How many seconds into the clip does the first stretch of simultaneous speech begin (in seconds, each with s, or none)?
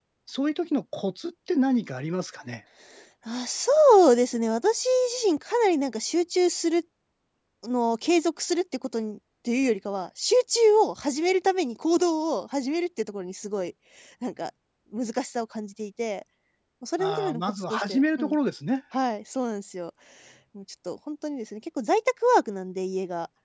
17.0 s